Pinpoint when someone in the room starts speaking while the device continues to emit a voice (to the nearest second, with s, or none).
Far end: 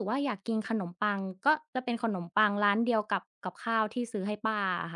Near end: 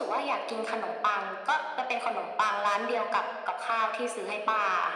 none